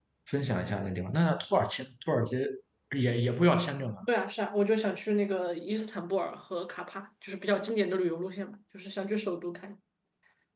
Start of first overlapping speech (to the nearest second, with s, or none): none